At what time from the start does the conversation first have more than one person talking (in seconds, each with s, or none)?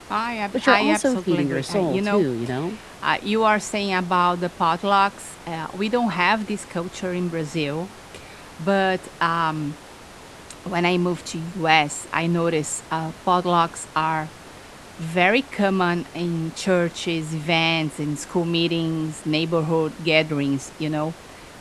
0.5 s